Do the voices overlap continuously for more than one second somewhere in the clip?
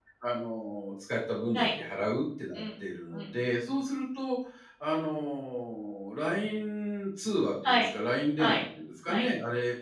No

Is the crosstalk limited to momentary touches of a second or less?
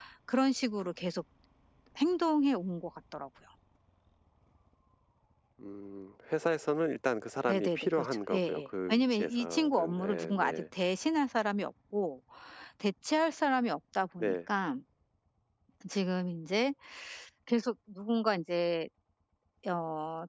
No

